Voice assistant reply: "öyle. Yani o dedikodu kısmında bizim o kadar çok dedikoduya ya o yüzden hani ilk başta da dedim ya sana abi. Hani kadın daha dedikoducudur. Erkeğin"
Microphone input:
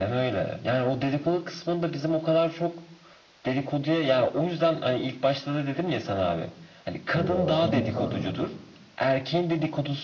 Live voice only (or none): orada başka ne? Kadın,